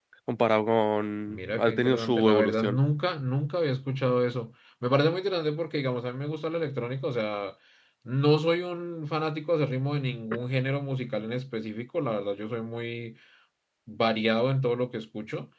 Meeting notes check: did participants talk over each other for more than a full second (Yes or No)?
Yes